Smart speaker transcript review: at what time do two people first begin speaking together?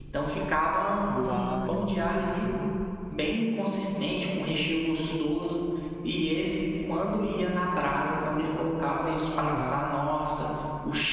1.1 s

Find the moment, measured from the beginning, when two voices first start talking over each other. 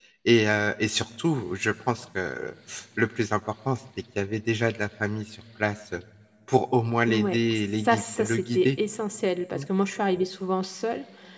7.1 s

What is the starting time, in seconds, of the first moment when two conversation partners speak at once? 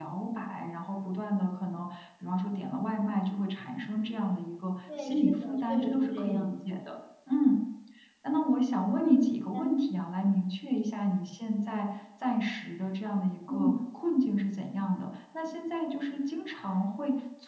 4.9 s

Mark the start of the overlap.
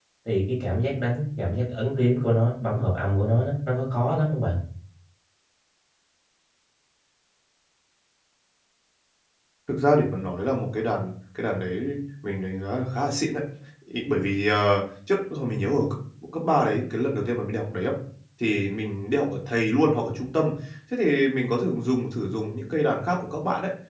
none

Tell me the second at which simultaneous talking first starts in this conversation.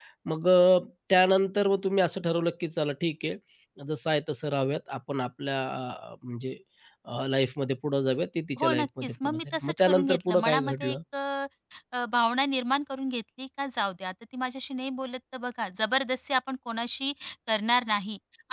8.6 s

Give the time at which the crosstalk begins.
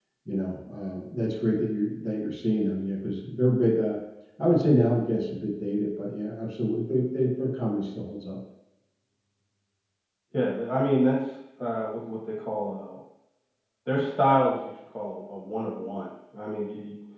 none

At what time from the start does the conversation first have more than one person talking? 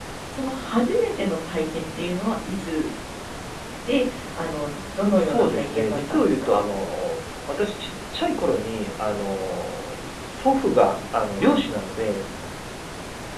5.2 s

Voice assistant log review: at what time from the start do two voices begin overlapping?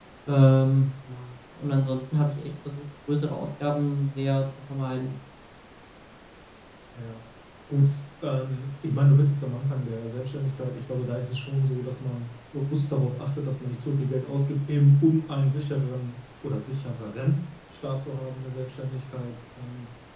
none

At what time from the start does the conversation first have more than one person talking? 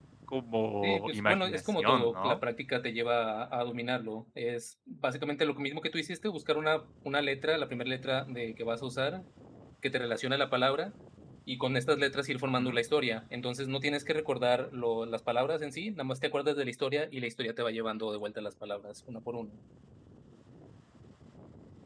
0.8 s

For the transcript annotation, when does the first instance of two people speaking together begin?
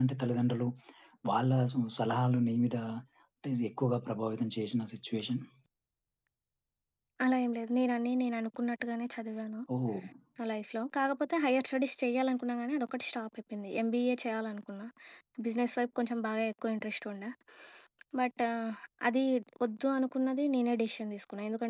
none

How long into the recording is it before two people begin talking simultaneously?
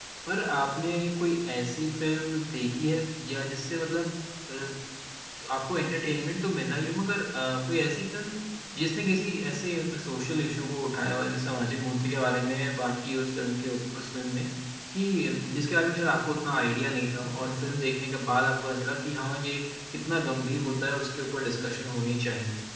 none

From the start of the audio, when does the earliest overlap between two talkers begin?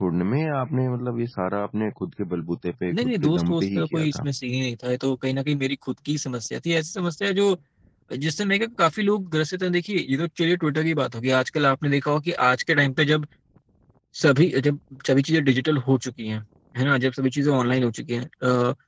2.9 s

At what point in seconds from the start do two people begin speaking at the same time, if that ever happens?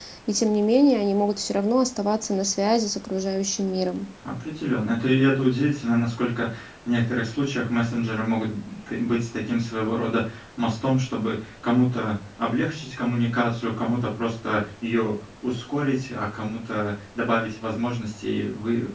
none

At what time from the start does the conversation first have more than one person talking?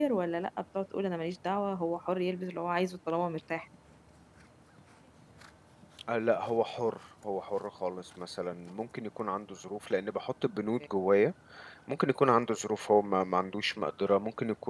none

